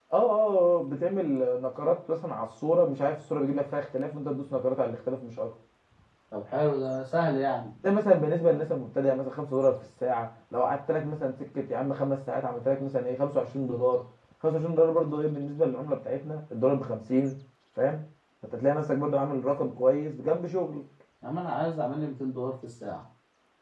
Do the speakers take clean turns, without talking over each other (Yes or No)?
Yes